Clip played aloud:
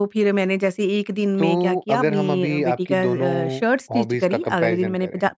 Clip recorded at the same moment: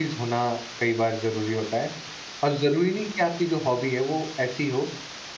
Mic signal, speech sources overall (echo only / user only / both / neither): user only